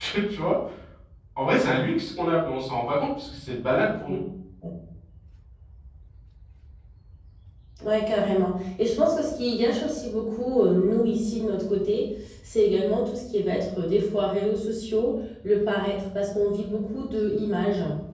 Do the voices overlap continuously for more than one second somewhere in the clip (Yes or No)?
No